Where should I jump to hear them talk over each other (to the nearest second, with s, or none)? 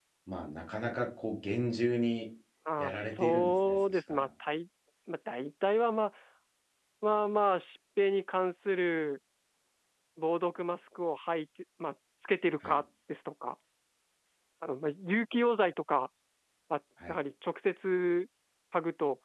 3 s